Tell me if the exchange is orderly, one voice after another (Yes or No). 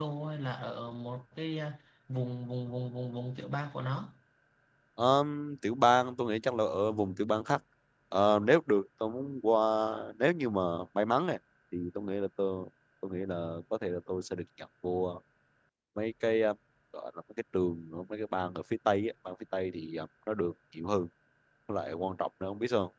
Yes